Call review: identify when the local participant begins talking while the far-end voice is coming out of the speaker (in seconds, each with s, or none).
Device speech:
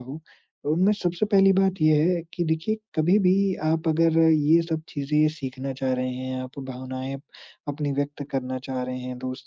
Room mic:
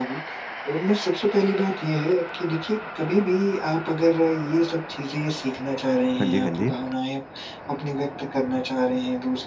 6.2 s